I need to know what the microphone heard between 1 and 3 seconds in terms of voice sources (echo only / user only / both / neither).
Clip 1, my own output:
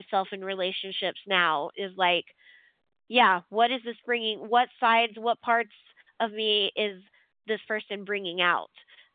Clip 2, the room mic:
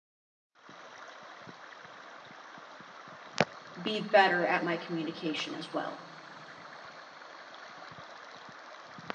neither